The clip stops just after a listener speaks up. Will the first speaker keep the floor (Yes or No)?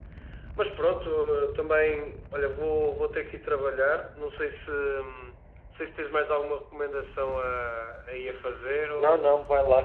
No